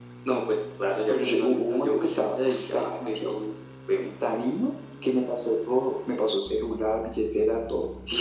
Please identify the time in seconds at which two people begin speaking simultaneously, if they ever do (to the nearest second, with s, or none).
1 s